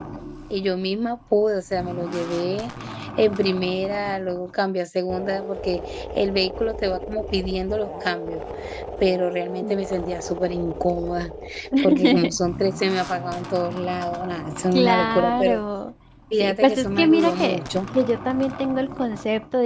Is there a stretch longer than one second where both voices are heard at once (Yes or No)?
Yes